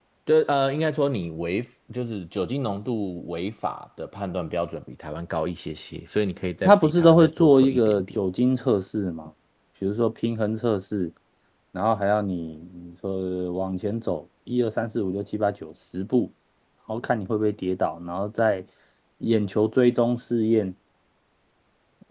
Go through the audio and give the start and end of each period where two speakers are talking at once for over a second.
6.7-8.2

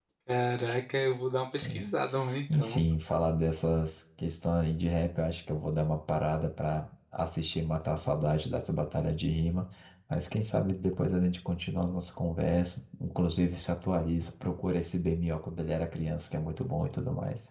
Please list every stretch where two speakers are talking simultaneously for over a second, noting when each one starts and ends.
none

